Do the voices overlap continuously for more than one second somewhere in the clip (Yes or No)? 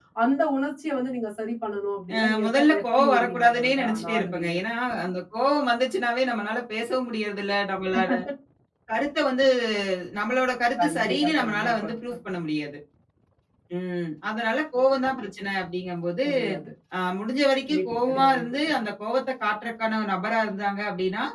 Yes